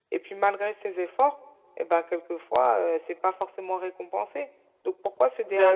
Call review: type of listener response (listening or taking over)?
listening